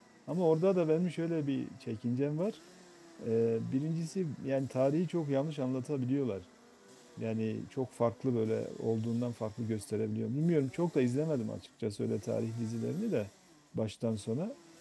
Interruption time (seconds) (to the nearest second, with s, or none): none